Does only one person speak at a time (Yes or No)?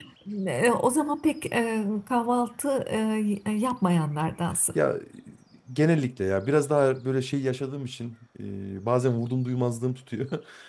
Yes